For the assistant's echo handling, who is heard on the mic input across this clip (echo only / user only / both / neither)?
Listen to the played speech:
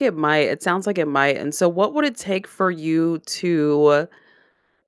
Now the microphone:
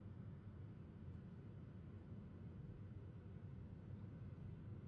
neither